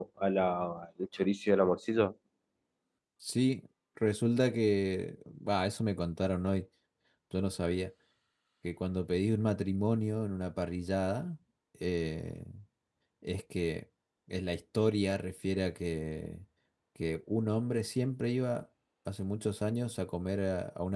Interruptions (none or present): none